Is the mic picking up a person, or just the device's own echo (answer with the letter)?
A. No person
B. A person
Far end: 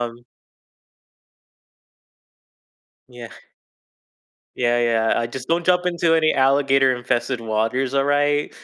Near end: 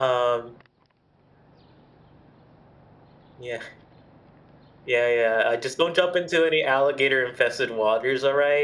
A